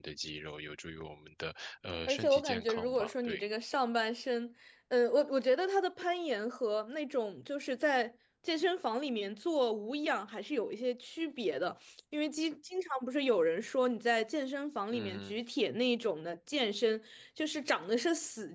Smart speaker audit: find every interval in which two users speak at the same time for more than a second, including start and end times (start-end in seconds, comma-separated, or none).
2.1-3.4